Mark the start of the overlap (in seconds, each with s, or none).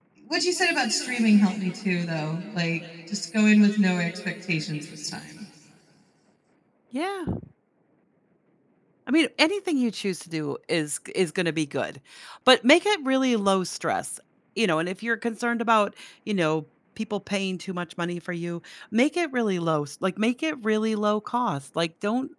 none